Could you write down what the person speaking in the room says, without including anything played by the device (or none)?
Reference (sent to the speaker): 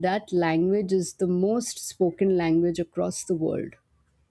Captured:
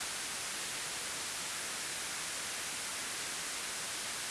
none